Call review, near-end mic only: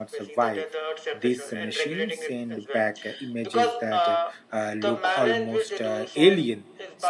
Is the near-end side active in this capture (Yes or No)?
Yes